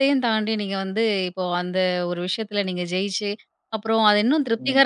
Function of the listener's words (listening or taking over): listening